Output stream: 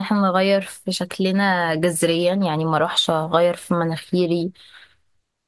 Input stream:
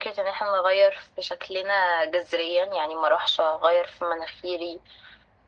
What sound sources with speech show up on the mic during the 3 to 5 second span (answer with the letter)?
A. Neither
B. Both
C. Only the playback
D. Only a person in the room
C